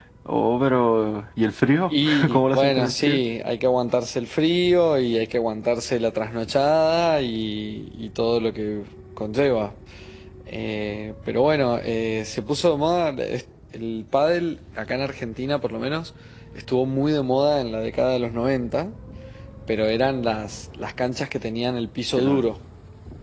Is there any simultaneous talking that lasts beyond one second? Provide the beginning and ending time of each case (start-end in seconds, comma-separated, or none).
1.9-3.2